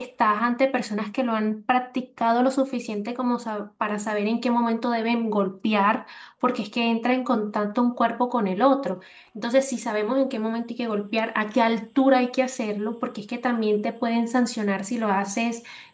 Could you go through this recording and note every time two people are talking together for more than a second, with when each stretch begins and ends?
none

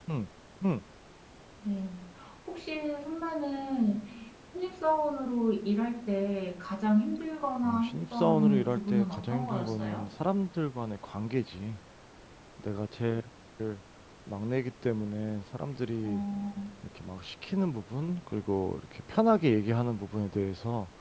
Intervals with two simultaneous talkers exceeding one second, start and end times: 7.6-10.1

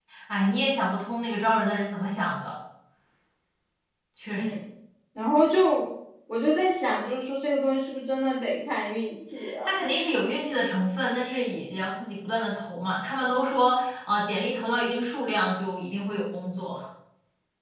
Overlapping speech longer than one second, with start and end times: none

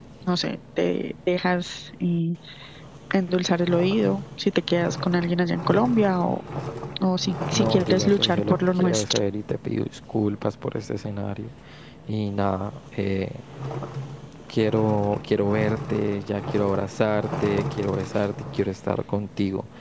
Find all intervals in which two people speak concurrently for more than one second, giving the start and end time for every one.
7.5-9.2

